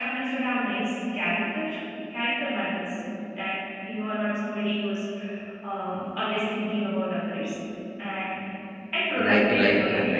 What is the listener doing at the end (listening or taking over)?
taking over